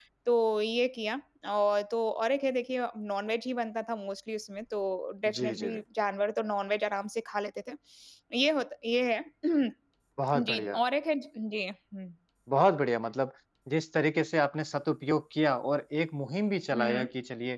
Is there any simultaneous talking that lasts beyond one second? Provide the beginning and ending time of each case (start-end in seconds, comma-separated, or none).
none